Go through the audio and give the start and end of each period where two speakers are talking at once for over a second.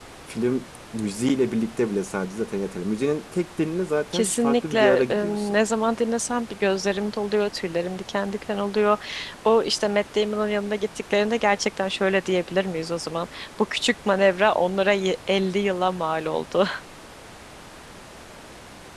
4.1-5.6

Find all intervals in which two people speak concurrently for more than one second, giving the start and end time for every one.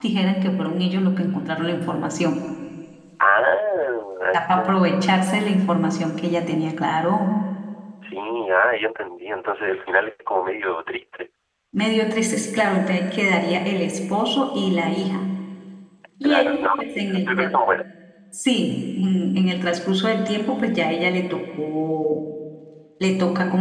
16.2-17.5

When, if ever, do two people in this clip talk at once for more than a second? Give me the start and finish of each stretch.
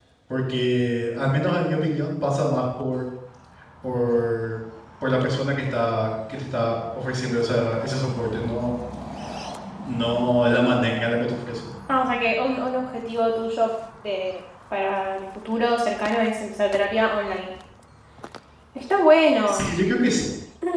none

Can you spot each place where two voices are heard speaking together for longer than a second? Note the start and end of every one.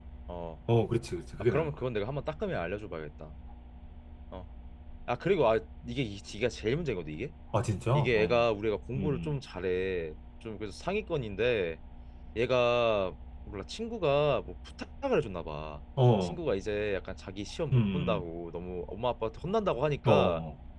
none

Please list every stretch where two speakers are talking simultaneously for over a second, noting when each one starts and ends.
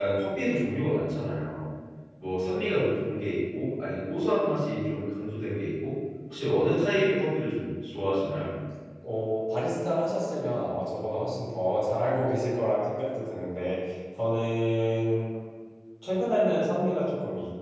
none

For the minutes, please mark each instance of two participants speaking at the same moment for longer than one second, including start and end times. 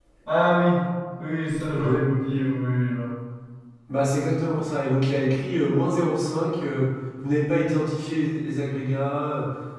none

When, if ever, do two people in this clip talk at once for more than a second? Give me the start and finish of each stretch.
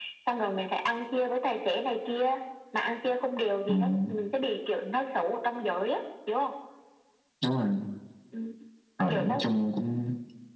none

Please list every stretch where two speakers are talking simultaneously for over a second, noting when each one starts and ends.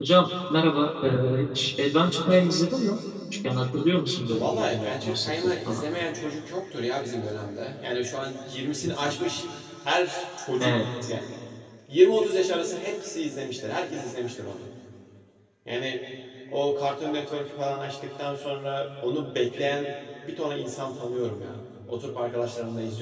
4.3-5.8

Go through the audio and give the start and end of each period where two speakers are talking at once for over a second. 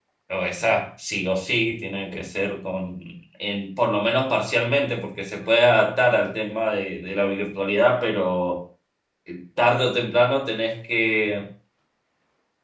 none

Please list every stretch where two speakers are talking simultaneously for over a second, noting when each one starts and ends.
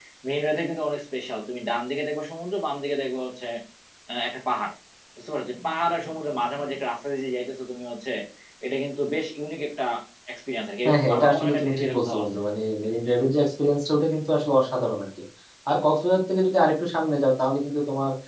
10.8-12.2

